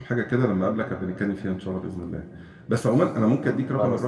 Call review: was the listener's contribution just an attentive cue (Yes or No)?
Yes